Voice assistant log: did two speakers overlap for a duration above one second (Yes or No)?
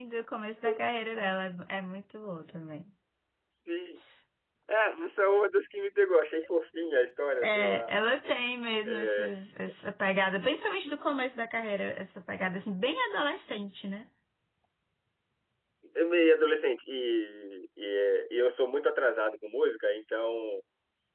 No